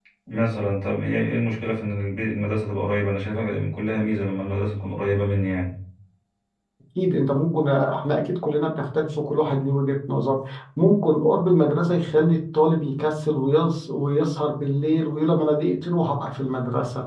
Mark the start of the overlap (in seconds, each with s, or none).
none